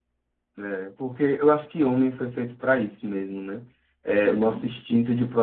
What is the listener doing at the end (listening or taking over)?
listening